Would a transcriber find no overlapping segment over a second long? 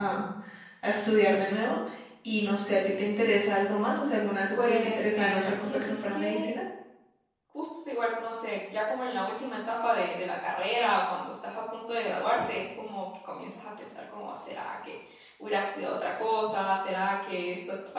No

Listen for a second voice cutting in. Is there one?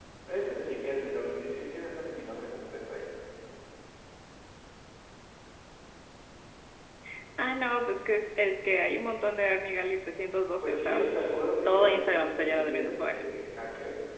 Yes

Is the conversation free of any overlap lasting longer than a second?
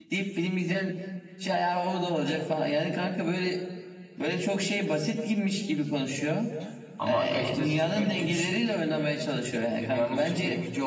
No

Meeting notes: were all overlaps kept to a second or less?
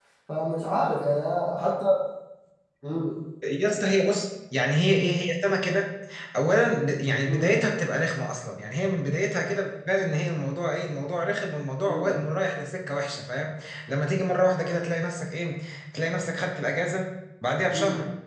Yes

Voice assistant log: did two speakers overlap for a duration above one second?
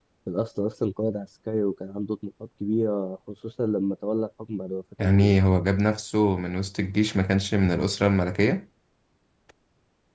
No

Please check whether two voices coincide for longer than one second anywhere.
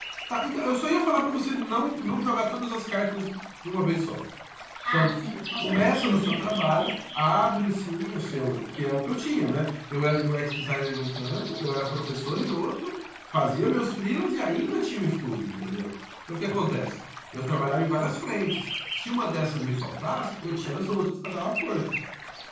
Yes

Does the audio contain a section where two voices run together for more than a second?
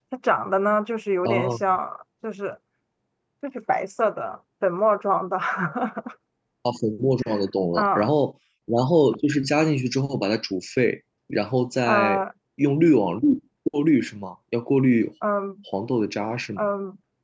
No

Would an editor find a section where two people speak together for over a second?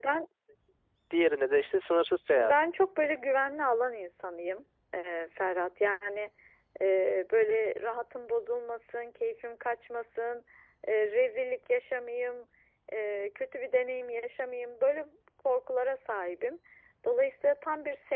No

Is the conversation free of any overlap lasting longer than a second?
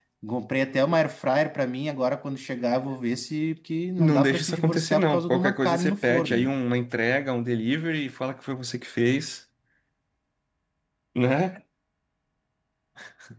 No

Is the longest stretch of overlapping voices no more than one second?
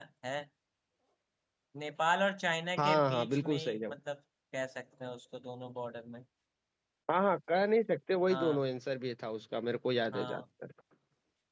No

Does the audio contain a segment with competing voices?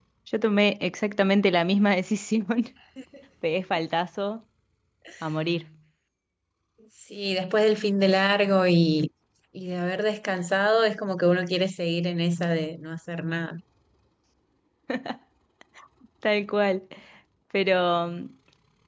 No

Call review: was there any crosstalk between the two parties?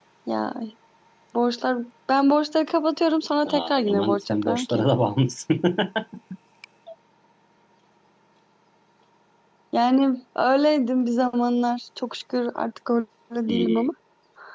Yes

